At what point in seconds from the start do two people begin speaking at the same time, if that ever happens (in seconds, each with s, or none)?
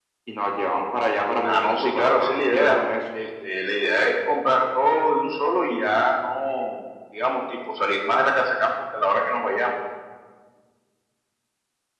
1.4 s